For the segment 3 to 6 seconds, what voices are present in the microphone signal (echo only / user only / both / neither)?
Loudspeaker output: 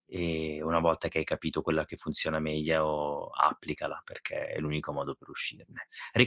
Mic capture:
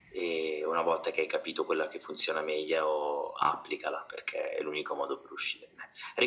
echo only